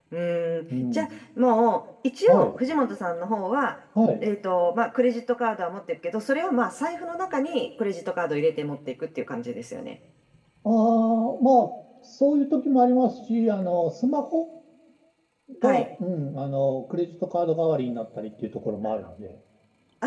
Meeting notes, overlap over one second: none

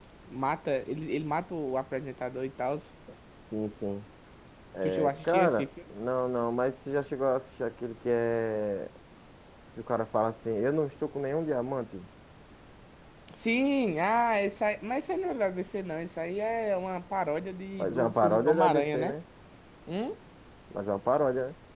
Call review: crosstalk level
present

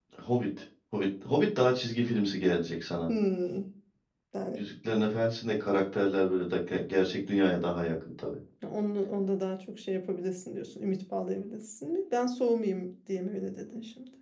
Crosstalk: none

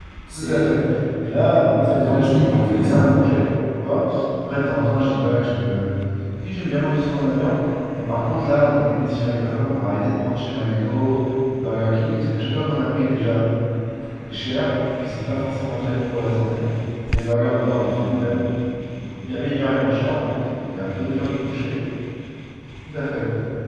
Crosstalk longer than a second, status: present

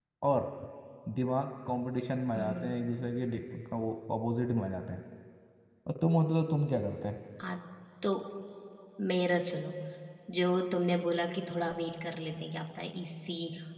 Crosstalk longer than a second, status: none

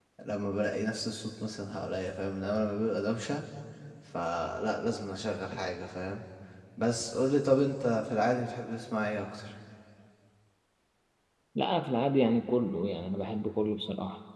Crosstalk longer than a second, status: none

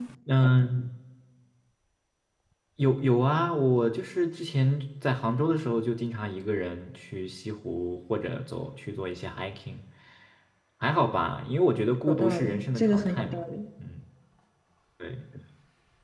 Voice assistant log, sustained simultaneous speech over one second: present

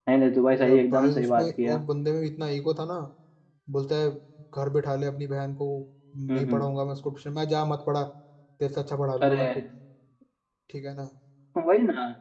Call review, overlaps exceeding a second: present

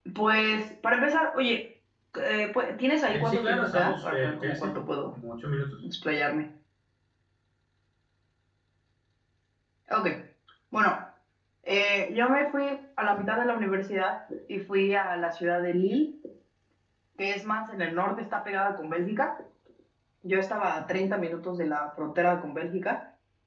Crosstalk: present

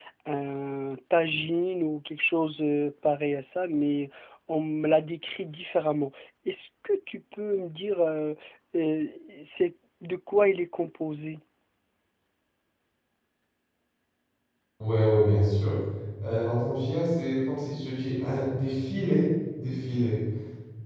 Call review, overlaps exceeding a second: none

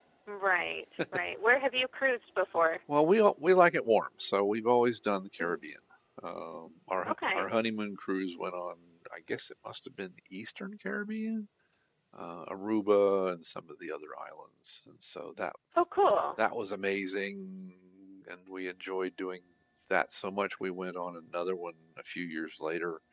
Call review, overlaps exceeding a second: none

